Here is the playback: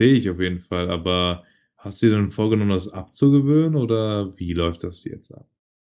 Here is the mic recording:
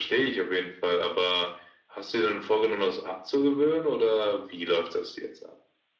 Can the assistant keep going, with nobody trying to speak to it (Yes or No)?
Yes